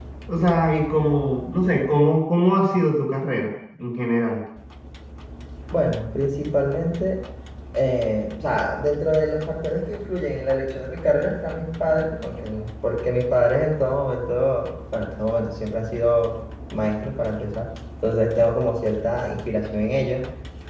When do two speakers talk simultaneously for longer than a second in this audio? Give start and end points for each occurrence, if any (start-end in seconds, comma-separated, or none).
none